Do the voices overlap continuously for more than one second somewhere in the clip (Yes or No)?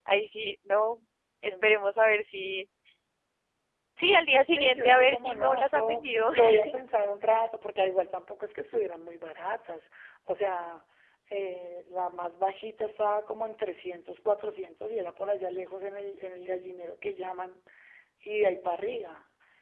Yes